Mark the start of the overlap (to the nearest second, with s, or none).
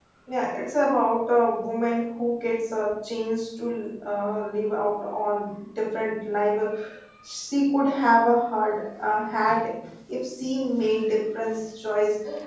none